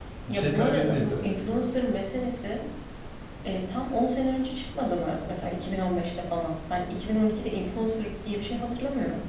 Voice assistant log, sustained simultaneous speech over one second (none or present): present